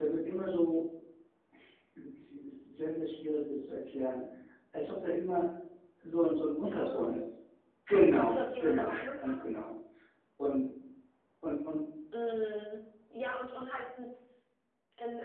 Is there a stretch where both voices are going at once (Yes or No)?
Yes